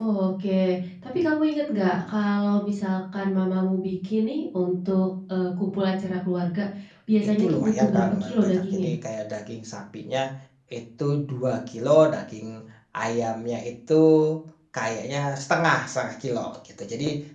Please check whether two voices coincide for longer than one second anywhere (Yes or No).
Yes